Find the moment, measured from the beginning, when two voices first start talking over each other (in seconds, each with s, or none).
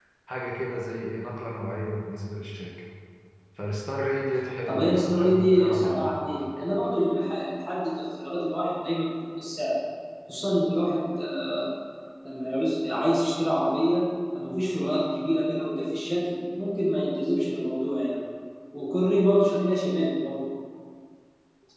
4.7 s